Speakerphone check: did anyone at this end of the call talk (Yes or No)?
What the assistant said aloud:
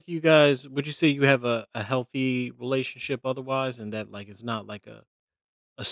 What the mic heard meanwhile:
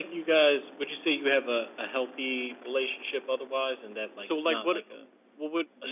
Yes